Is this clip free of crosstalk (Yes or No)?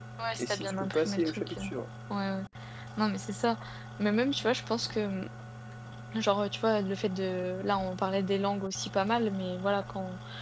No